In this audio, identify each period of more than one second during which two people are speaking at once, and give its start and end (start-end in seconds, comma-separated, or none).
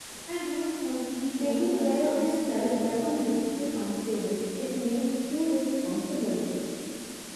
1.4-3.6